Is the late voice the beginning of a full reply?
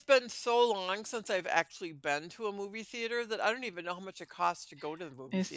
Yes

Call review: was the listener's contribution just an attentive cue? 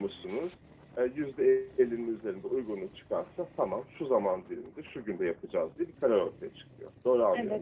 No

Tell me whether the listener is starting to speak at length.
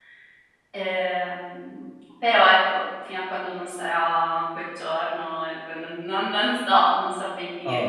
Yes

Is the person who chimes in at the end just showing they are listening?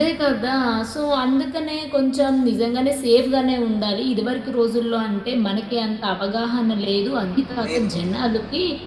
Yes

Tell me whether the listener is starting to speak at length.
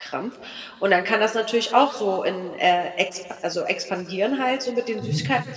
No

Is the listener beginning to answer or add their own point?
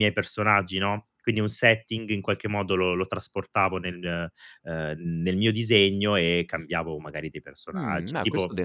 Yes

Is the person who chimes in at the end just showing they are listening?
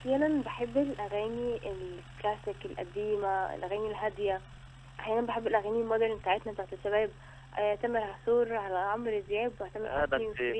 No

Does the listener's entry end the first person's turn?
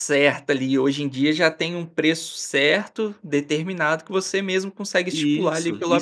Yes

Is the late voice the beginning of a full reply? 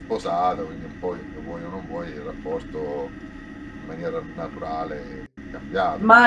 Yes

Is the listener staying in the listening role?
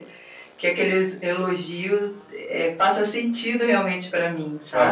No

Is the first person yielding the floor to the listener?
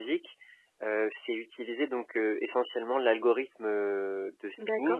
Yes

